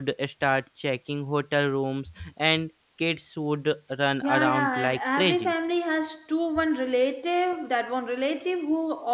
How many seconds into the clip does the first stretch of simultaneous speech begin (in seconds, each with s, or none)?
4.2 s